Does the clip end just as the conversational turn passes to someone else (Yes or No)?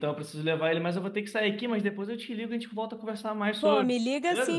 Yes